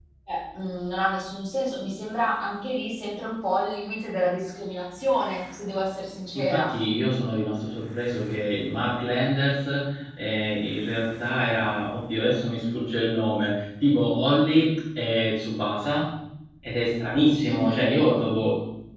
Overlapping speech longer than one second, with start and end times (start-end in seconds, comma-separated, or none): none